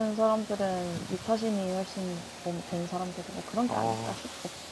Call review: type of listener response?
taking over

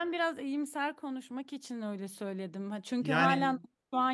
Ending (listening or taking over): listening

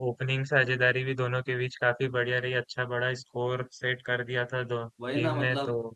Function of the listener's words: taking over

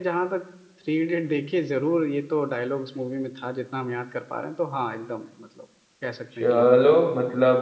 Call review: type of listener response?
taking over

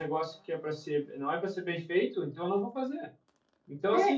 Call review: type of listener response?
listening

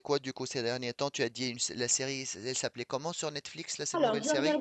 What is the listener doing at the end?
taking over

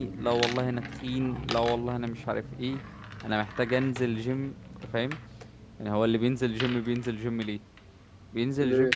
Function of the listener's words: listening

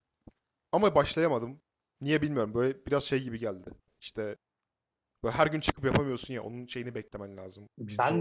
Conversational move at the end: taking over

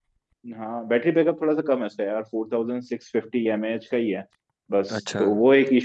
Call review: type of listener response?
listening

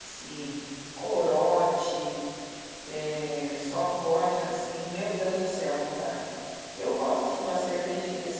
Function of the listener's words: listening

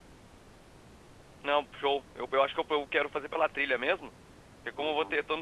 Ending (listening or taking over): listening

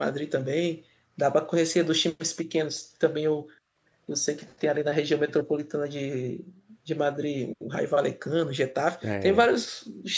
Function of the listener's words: listening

